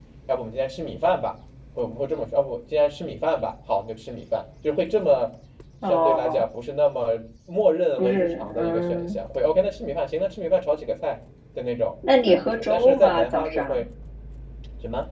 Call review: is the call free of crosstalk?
No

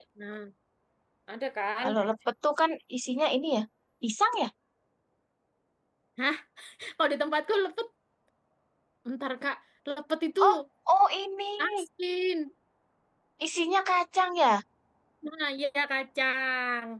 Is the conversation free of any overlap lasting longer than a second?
Yes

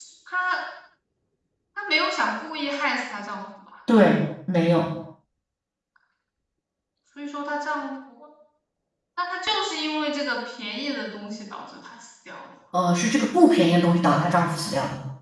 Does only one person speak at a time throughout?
Yes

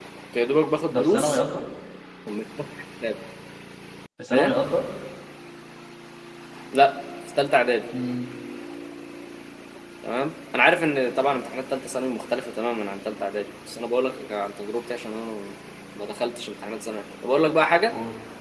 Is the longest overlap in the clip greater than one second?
No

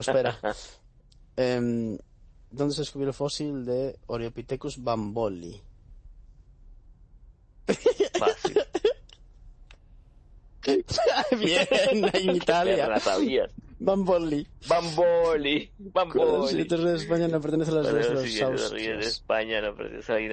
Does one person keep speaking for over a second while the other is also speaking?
Yes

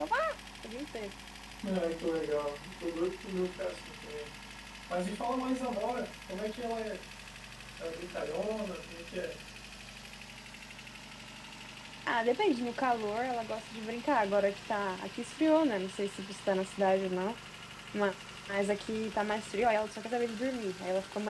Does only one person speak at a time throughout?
Yes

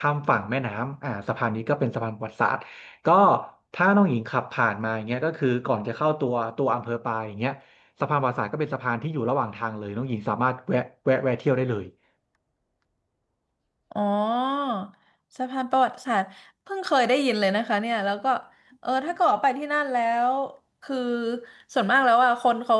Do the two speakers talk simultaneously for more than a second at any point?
No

